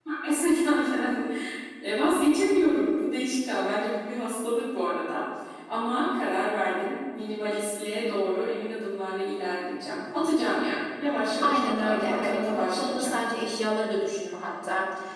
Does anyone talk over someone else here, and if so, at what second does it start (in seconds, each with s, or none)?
11.4 s